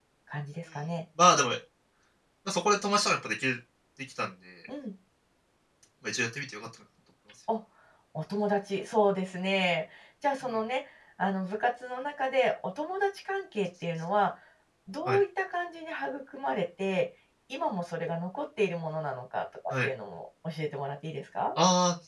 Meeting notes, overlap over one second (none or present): none